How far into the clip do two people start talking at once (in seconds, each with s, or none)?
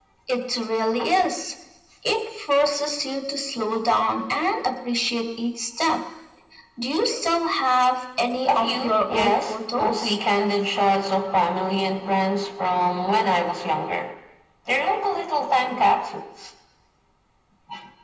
8.5 s